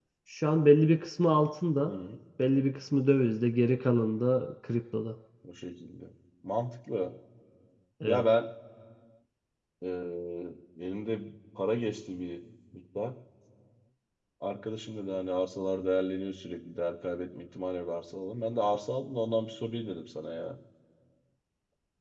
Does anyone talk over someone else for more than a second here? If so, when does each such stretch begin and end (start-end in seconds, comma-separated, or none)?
none